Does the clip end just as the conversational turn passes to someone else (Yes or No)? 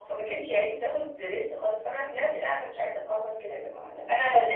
No